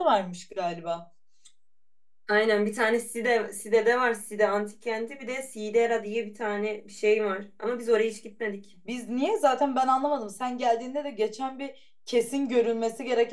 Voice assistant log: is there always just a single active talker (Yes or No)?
Yes